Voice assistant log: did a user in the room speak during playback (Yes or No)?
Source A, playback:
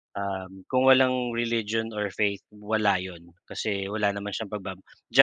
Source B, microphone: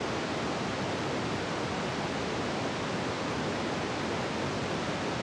No